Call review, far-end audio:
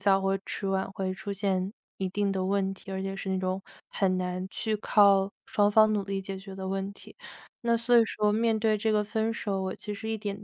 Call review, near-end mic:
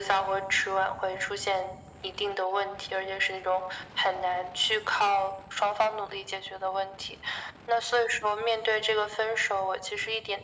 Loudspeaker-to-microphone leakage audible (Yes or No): Yes